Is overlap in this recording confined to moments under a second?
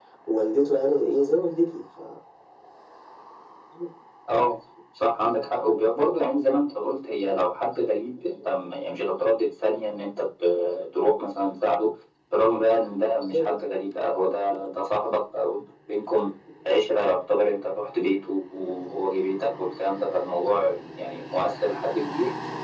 Yes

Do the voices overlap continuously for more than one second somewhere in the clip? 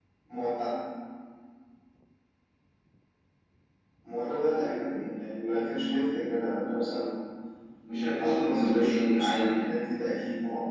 Yes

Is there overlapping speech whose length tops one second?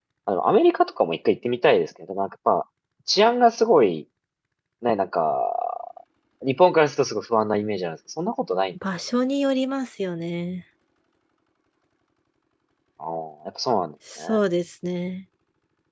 No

